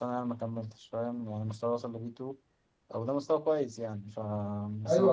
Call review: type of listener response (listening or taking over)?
taking over